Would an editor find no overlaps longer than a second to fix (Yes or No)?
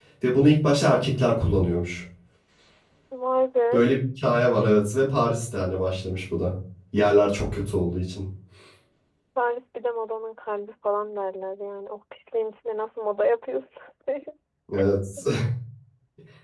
Yes